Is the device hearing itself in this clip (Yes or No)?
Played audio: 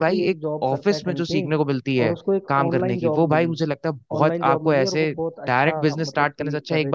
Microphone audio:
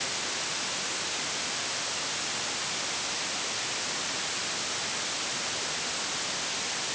No